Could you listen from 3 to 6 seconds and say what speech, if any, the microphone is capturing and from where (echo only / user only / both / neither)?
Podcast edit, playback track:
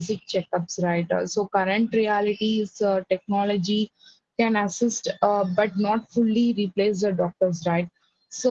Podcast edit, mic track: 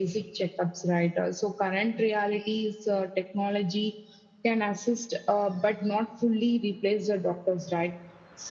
echo only